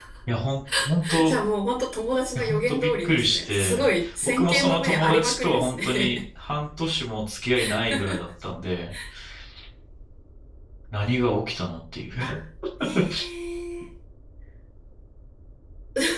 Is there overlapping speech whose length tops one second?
Yes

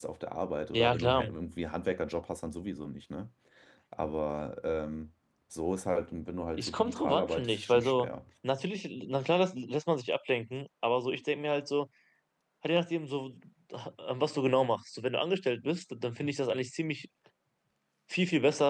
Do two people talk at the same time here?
Yes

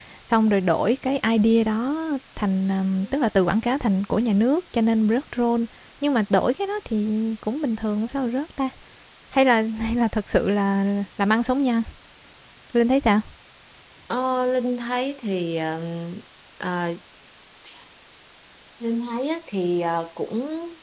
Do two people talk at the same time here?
No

